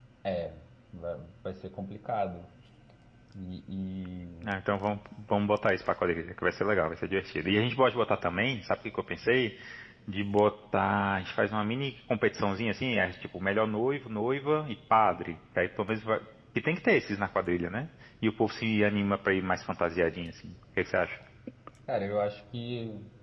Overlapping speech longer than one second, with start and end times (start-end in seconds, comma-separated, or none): none